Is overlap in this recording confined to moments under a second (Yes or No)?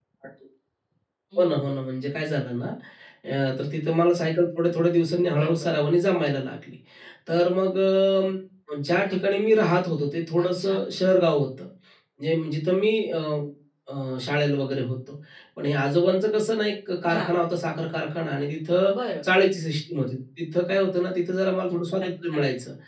Yes